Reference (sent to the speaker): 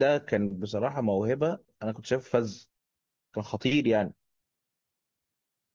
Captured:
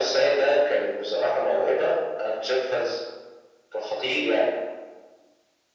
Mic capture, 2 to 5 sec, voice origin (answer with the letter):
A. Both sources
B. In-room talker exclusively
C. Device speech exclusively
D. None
C